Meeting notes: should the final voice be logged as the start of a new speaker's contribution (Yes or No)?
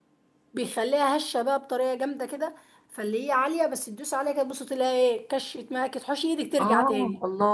Yes